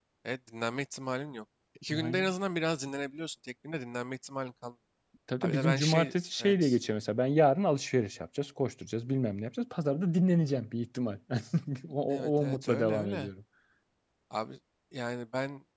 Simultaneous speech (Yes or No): Yes